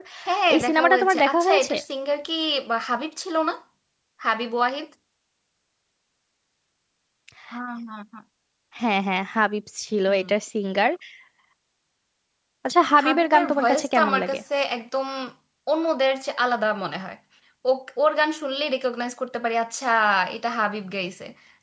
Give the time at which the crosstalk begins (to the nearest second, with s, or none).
1 s